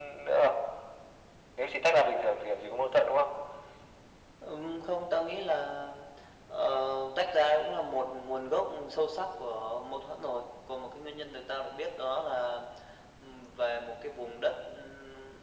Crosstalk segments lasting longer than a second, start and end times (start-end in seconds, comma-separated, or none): none